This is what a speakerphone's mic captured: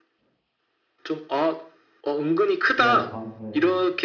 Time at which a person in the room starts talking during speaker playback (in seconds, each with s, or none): 2.8 s